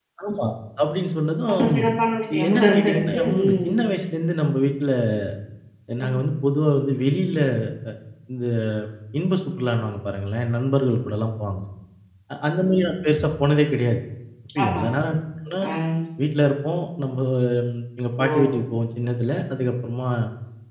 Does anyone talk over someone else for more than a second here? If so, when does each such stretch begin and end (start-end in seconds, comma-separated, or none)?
2.5-3.7